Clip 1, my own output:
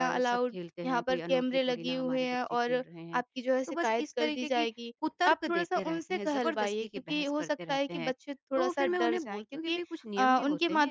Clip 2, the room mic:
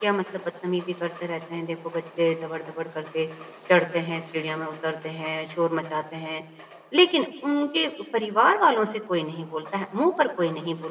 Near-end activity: present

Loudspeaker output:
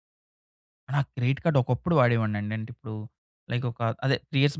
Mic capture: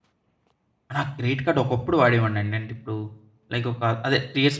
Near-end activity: none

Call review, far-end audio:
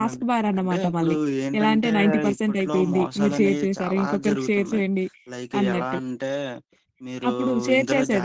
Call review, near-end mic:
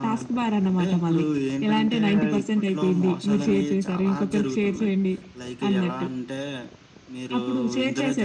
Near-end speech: none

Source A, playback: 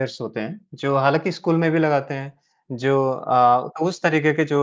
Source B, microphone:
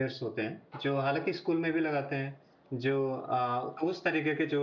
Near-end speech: none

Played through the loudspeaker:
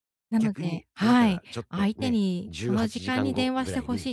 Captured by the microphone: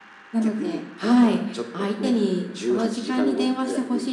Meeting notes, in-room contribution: none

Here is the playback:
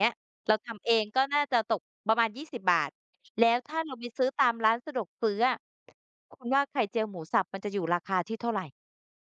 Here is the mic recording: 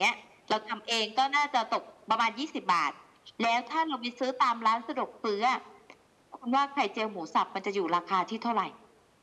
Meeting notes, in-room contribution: none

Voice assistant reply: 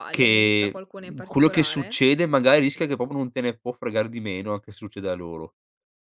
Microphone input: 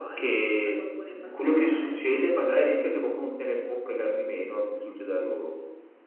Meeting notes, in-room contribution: none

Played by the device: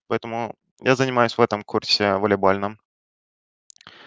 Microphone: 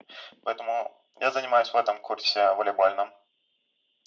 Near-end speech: none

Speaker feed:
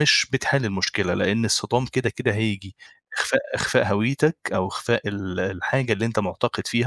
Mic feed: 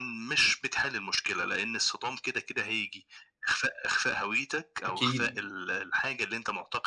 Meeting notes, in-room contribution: present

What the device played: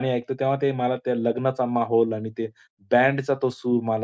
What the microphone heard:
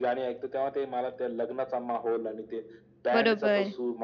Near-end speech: present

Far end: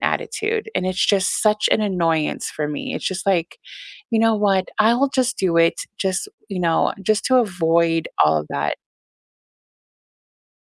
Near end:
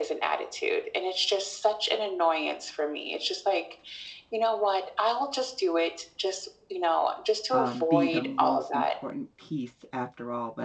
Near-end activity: present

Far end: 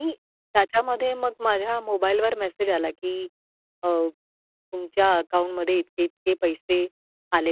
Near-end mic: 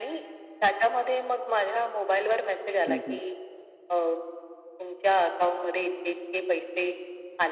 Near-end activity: present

